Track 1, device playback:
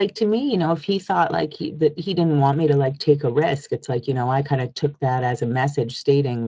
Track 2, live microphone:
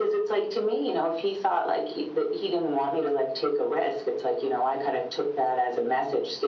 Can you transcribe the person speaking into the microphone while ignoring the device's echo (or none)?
none